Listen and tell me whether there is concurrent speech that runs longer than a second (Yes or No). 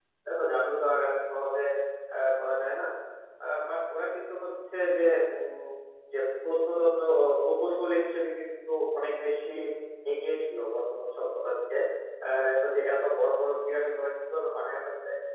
No